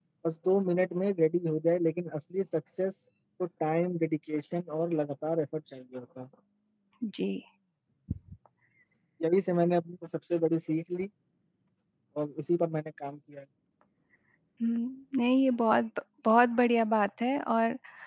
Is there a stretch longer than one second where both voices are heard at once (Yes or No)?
No